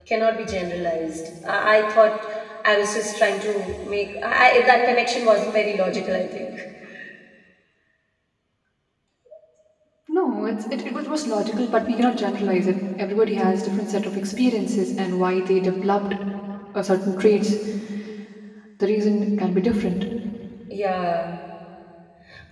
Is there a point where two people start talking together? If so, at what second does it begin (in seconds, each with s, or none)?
none